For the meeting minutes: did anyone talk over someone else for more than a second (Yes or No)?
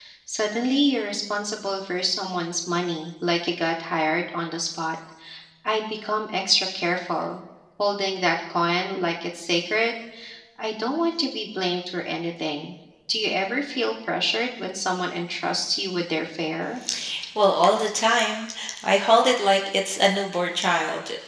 No